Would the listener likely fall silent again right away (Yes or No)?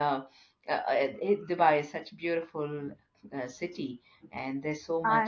Yes